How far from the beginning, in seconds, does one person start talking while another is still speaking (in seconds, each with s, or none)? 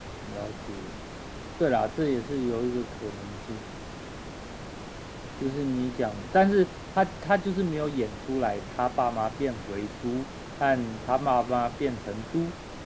none